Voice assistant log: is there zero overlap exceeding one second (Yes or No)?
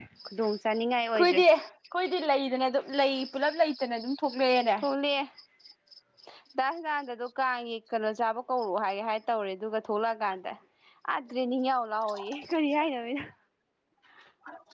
Yes